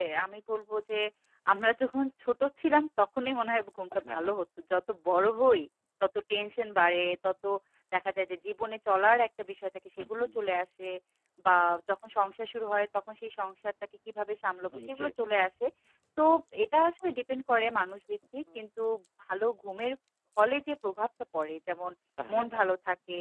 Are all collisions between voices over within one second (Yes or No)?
Yes